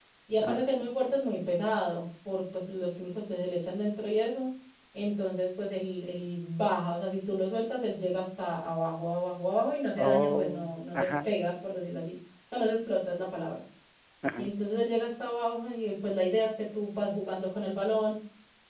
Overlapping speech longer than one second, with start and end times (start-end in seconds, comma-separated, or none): 10.0-11.3